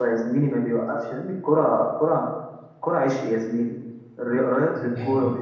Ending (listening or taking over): listening